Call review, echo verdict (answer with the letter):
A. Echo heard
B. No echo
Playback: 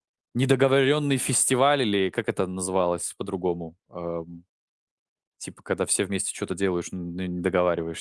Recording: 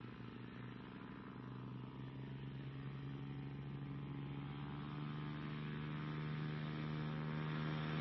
B